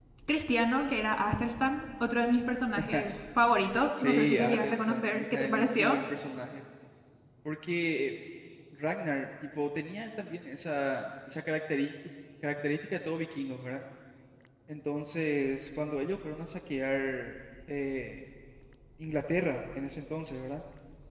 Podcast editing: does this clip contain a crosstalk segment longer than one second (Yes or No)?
Yes